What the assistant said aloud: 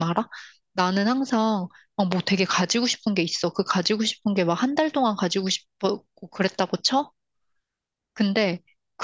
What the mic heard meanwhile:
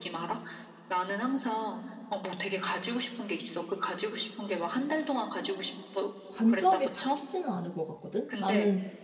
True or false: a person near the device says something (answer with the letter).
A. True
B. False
A